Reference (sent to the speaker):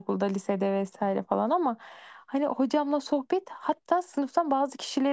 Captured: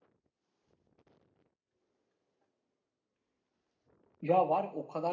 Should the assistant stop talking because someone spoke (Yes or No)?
Yes